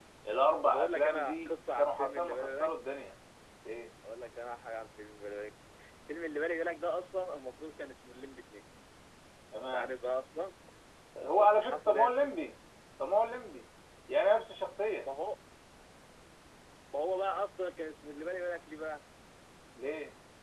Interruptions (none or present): present